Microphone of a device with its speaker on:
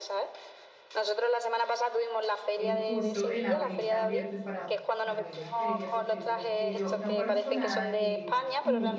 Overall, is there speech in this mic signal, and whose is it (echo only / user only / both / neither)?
both